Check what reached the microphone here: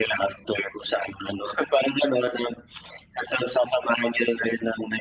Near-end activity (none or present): none